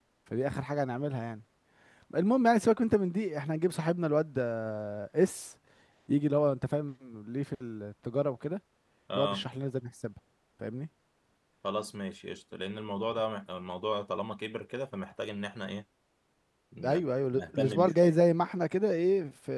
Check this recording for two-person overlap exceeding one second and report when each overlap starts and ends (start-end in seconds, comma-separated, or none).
16.8-18.2